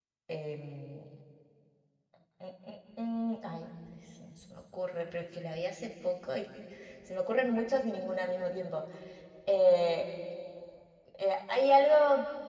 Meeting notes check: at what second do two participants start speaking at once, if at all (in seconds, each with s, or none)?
none